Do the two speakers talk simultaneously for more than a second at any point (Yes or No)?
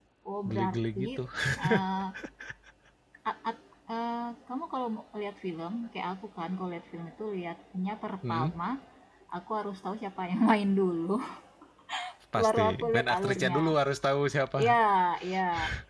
Yes